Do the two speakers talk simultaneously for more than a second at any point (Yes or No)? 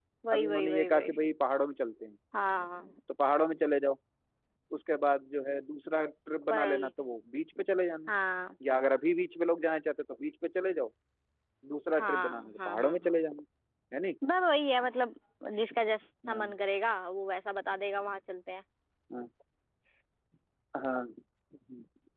Yes